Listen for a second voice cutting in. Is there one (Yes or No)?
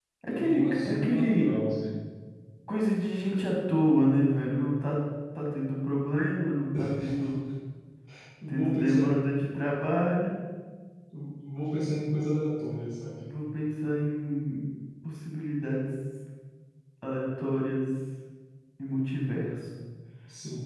Yes